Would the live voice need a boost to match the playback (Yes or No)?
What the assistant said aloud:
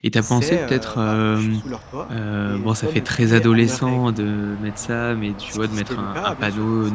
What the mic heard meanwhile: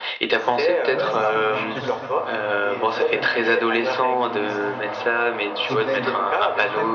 Yes